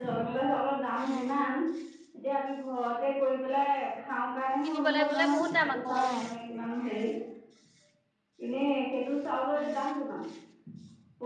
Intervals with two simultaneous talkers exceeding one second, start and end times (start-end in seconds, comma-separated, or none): 4.6-6.2